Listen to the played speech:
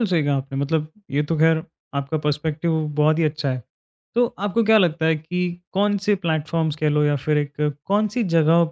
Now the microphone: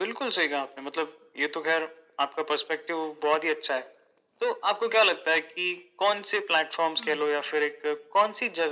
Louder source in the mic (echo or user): echo